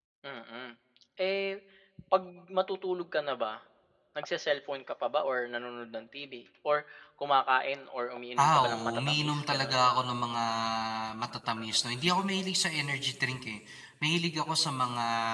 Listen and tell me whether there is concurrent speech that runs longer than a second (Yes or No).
Yes